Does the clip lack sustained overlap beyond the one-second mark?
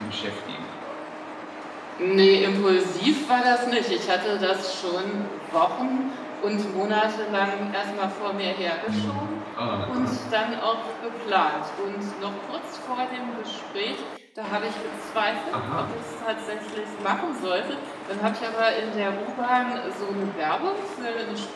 Yes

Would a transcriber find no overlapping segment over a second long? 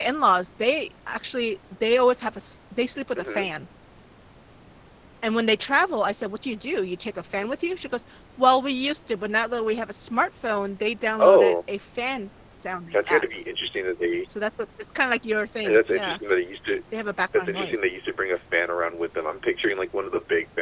Yes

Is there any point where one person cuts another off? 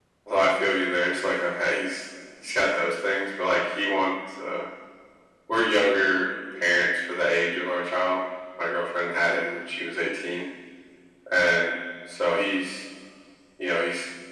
No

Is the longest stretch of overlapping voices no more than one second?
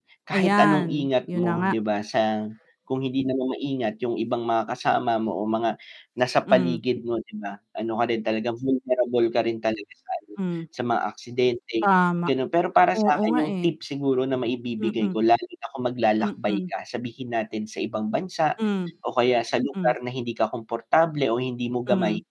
No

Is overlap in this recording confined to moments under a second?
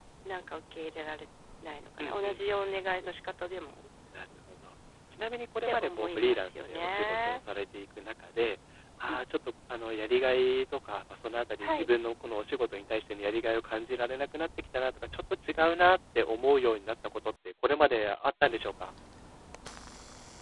No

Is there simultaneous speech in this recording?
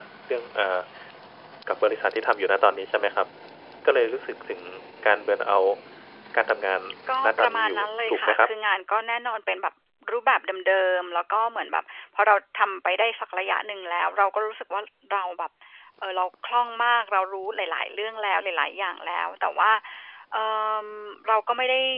Yes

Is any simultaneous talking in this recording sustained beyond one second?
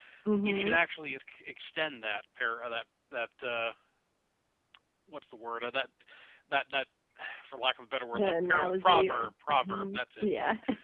Yes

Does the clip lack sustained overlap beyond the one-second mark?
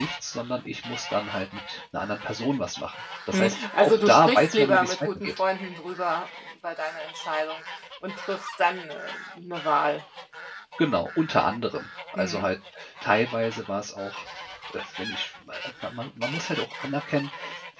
No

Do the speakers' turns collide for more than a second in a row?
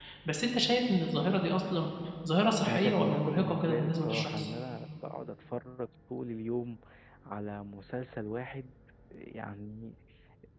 Yes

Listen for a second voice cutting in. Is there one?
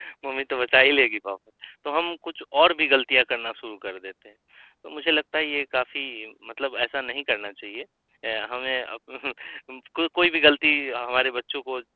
No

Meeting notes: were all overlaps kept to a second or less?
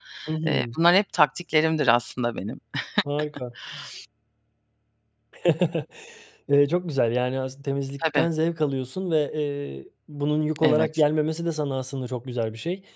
Yes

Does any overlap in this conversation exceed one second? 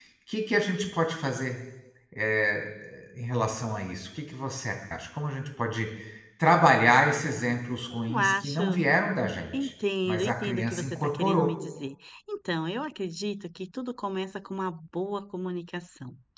Yes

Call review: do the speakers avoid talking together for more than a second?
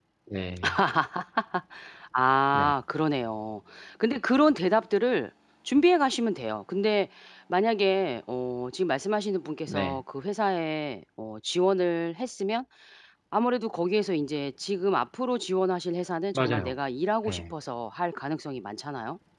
Yes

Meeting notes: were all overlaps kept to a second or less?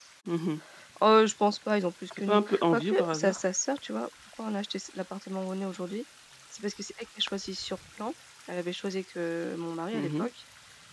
No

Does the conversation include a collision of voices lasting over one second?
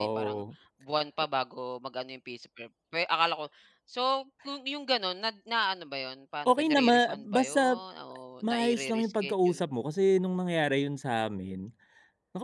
Yes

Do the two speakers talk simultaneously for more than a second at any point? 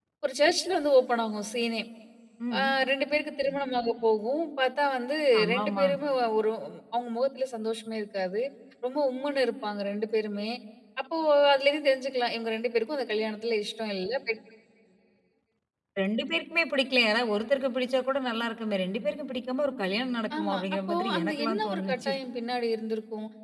Yes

